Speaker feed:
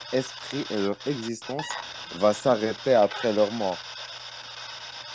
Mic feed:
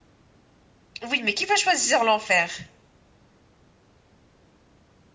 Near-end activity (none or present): present